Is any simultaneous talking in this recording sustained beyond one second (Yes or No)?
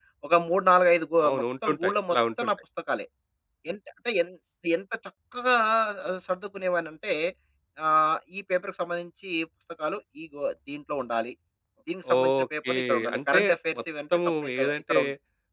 Yes